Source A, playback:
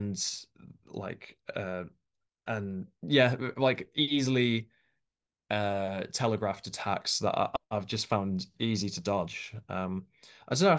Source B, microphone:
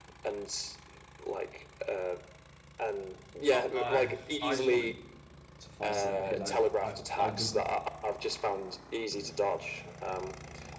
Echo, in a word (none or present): present